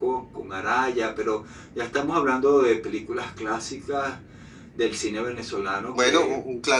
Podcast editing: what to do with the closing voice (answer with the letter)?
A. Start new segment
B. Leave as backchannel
A